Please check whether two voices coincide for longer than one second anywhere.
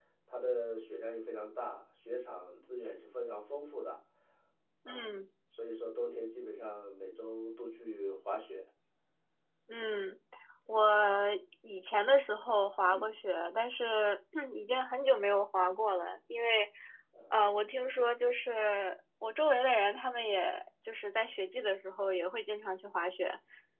No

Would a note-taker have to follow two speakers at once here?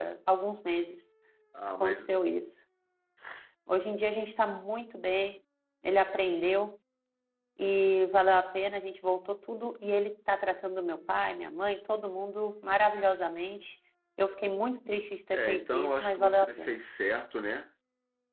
Yes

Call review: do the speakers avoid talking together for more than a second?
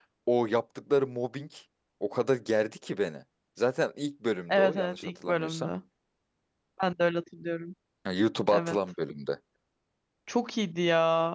No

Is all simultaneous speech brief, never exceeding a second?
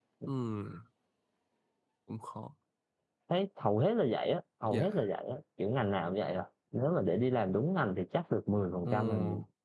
Yes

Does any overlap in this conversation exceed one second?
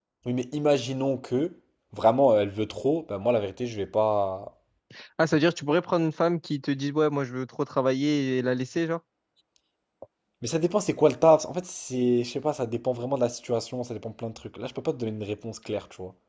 No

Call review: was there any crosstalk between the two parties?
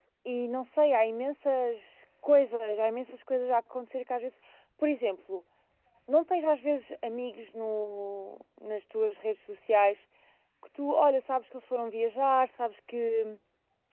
No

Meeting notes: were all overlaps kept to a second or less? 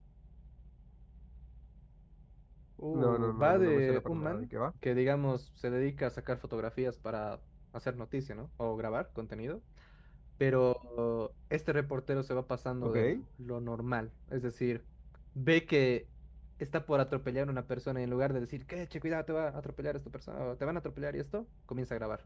No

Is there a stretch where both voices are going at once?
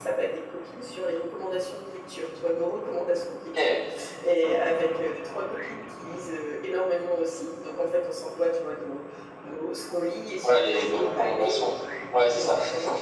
Yes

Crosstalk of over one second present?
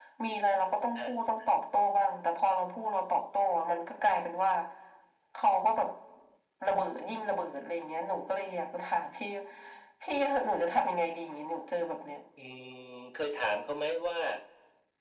No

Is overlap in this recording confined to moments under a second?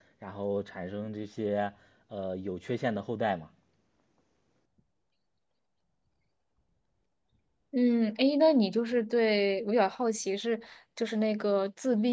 Yes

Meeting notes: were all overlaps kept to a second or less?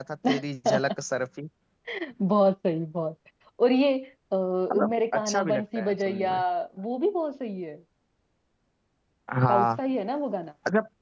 No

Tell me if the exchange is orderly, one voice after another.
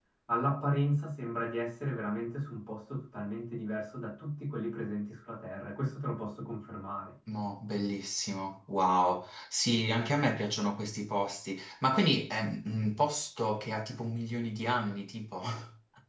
Yes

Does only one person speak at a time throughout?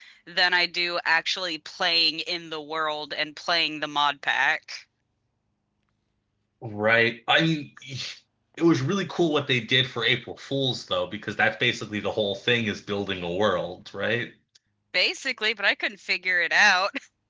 Yes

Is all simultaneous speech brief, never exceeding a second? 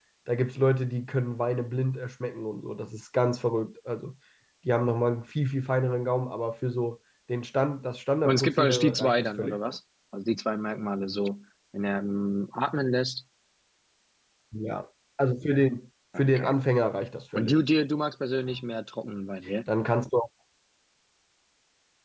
No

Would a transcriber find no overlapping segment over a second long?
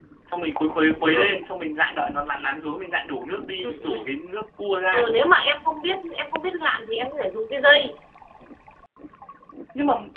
Yes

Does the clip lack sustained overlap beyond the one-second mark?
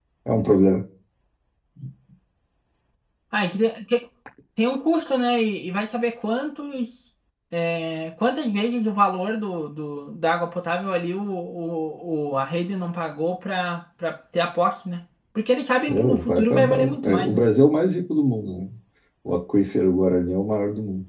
No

